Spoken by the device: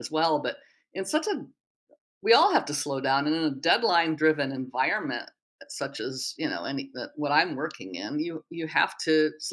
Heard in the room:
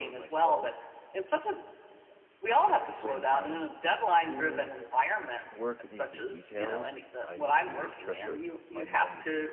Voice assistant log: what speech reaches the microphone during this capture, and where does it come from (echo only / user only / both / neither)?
both